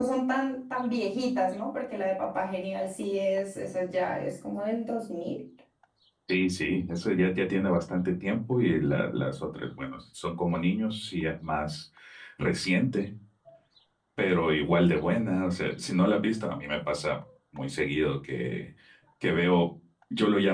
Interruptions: none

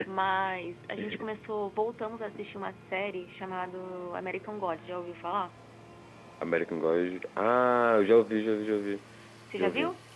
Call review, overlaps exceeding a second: none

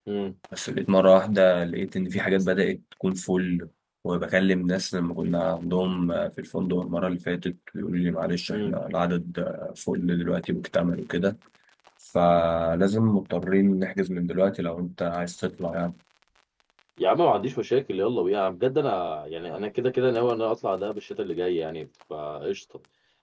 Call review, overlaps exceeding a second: none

